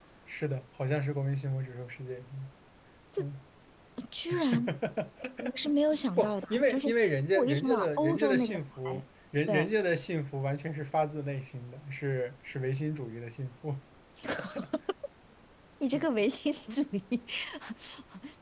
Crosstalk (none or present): present